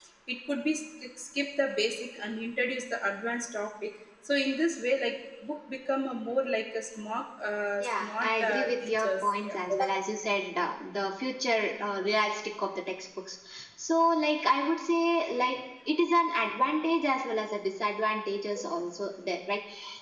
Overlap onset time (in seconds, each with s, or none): 7.8 s